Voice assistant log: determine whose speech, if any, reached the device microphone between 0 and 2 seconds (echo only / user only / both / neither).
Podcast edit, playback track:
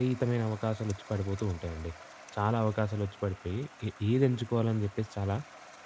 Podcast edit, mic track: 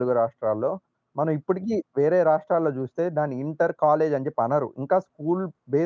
user only